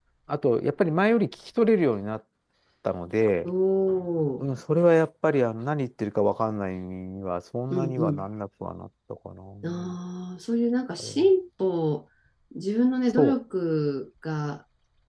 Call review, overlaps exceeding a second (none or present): none